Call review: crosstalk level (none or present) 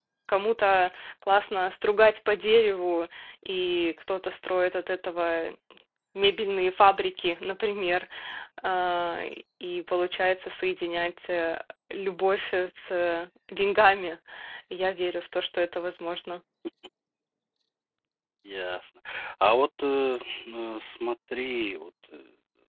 none